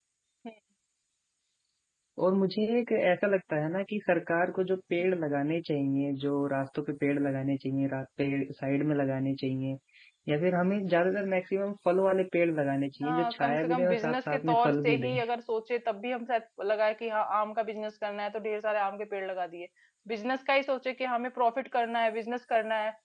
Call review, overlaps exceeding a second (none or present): present